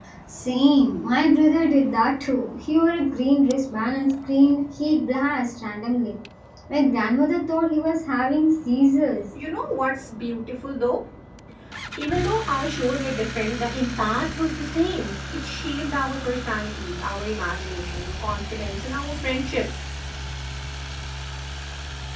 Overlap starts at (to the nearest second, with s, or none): none